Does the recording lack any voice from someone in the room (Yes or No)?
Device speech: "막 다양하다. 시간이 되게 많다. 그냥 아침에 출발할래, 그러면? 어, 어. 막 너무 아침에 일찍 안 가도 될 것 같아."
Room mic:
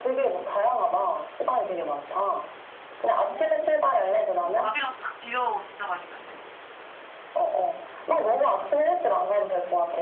No